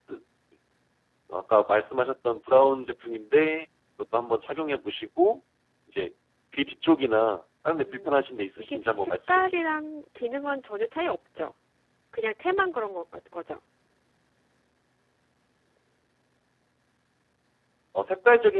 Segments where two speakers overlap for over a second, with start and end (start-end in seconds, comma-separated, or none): 7.8-9.6